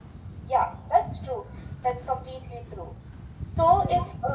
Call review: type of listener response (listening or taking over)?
listening